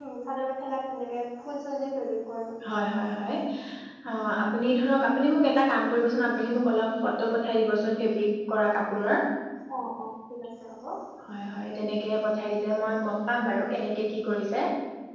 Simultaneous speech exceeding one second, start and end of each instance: none

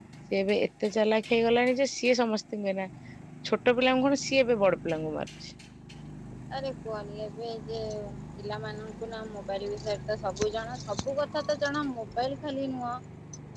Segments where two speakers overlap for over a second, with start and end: none

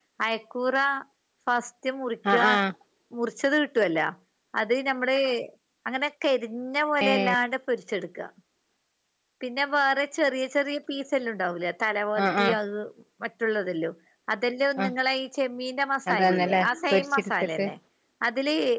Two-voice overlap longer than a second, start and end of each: 16.1-17.6

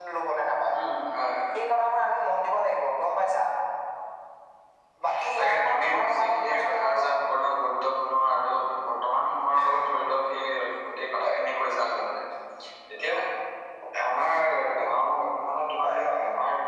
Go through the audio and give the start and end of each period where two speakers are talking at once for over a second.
5.4-7.1

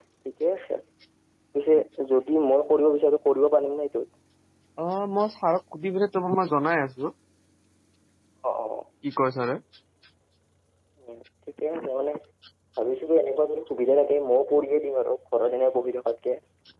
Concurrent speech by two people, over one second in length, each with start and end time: none

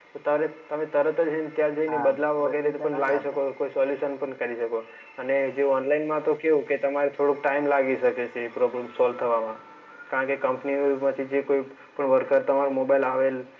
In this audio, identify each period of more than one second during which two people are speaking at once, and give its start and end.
1.9-3.4

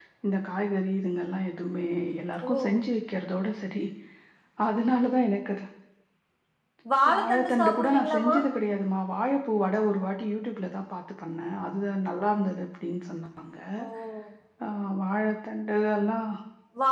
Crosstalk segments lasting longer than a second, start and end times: 7.1-8.3

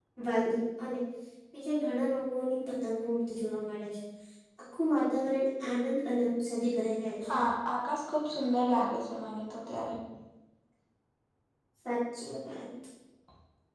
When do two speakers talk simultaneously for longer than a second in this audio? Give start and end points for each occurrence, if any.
none

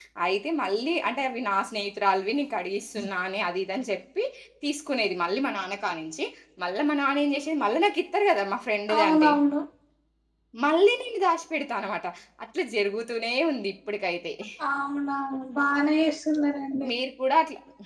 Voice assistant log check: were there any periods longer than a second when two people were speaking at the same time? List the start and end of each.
none

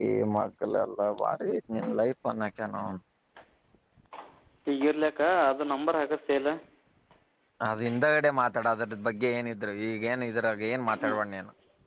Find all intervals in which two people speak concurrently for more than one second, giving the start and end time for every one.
none

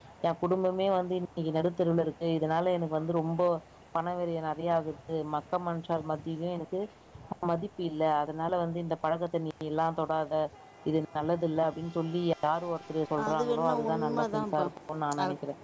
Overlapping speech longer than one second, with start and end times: 13.3-14.6

